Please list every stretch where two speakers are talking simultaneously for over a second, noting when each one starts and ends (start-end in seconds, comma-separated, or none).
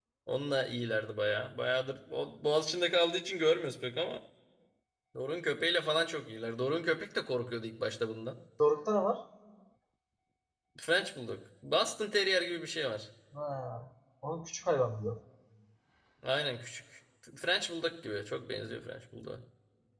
none